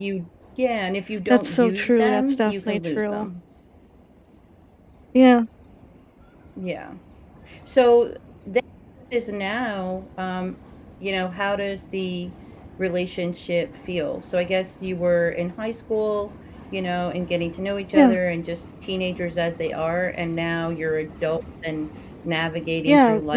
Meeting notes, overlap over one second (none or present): present